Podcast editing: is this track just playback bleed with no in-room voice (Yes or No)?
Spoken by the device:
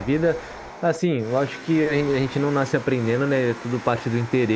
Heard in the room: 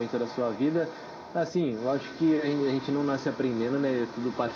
Yes